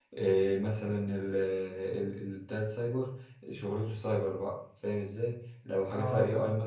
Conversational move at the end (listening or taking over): listening